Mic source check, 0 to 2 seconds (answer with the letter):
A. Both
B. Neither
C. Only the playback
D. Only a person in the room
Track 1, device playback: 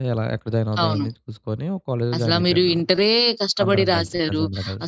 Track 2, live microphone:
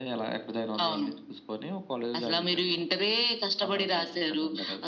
C